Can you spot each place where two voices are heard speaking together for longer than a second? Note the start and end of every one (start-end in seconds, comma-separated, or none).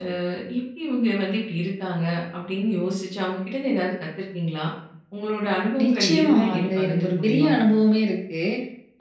5.8-7.5